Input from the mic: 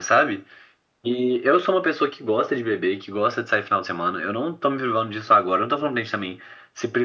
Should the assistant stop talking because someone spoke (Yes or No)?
No